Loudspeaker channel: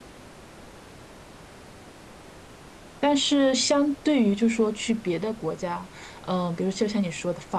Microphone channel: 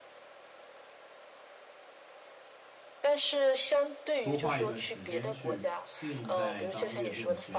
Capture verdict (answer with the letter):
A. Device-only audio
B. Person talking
B